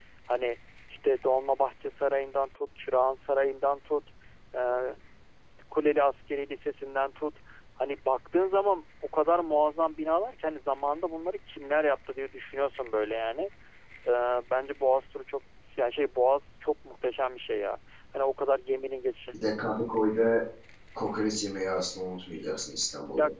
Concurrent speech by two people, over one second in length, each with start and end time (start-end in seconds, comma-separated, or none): none